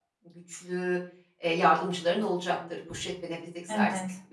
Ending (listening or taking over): taking over